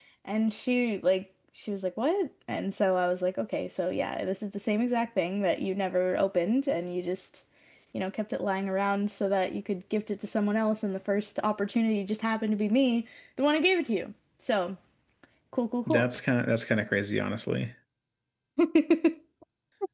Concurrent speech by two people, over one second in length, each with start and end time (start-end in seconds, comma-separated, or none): none